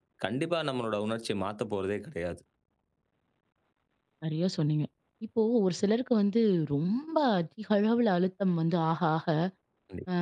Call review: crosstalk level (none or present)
none